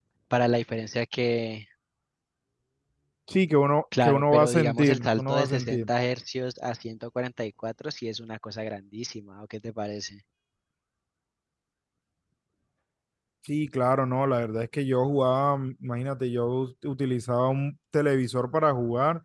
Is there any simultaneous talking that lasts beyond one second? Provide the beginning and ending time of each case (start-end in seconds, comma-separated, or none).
4.0-5.8